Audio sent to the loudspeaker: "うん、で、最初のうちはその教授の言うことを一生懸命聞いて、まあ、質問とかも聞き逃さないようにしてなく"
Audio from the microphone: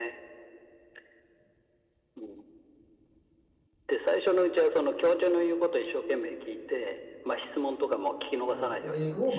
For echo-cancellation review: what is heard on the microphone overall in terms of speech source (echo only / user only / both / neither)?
both